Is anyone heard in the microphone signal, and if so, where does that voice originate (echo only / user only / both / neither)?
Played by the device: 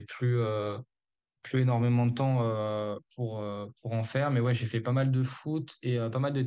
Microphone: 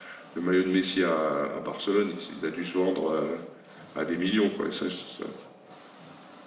user only